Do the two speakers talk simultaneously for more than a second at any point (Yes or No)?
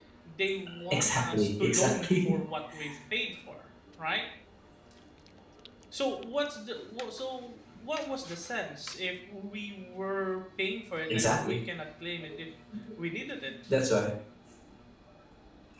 Yes